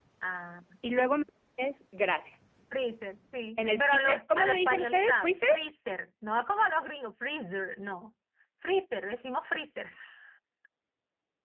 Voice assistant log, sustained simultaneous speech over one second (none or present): present